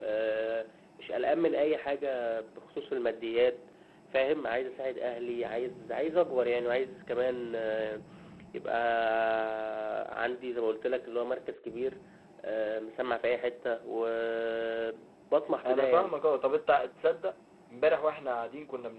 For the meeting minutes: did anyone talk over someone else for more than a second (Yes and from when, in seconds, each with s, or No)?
No